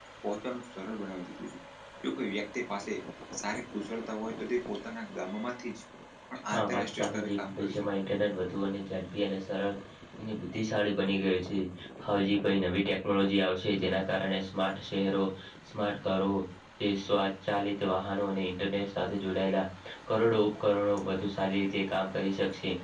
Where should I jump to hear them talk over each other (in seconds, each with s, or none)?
6.5 s